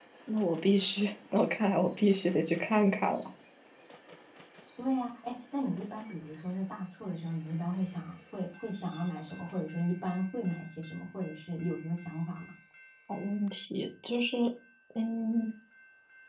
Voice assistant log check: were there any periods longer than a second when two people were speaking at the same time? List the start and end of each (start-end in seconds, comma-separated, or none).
none